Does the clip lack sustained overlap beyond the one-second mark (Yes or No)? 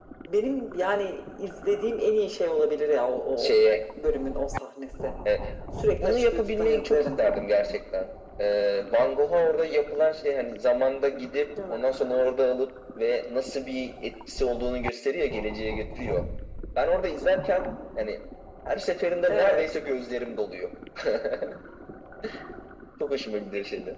No